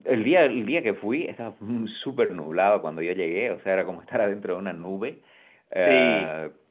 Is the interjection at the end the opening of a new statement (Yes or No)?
No